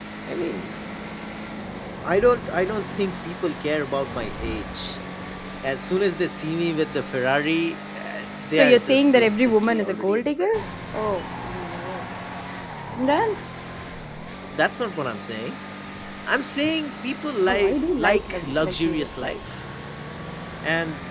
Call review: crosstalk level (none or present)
present